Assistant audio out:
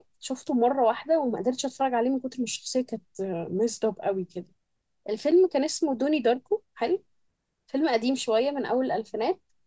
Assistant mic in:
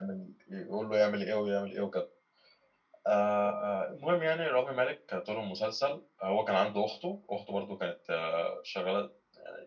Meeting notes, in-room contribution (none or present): present